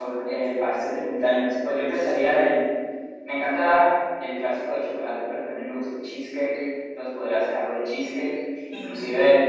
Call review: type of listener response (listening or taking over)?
listening